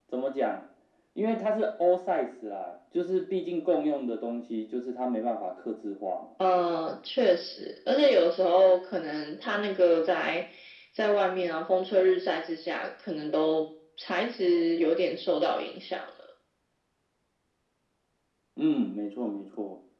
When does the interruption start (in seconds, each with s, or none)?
none